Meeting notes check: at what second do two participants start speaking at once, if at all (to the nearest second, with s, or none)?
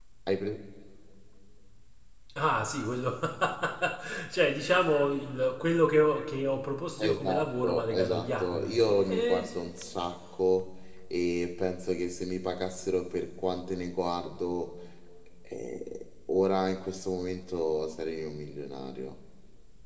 7 s